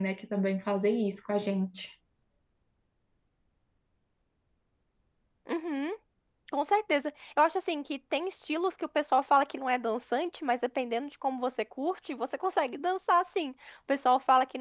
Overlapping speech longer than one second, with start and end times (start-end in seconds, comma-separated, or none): none